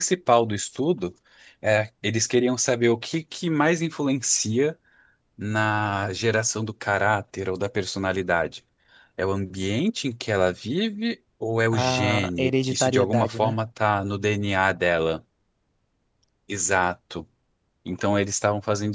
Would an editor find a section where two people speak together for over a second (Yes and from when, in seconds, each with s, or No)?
Yes, from 11.7 s